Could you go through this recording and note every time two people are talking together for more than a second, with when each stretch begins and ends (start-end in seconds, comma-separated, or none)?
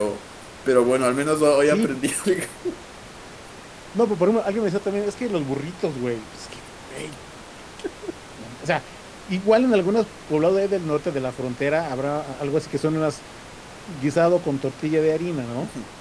none